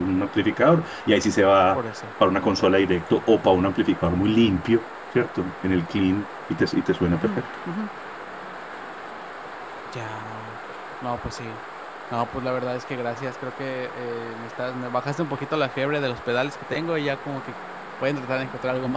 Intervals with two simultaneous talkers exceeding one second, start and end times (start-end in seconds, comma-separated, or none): none